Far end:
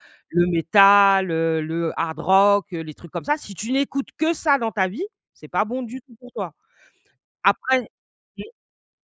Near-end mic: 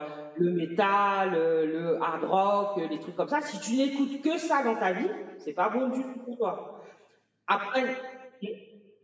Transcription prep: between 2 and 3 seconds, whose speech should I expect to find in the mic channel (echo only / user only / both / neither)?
echo only